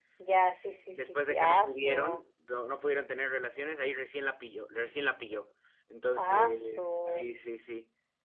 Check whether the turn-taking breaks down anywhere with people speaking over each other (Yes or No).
Yes